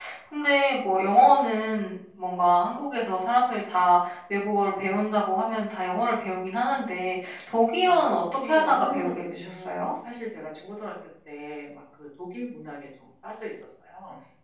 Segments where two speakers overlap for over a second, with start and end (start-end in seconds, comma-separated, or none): 7.8-9.9